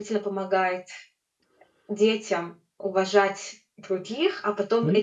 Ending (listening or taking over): listening